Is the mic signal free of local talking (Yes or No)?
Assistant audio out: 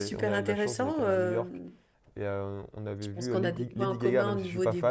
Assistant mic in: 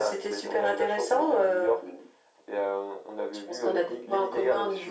Yes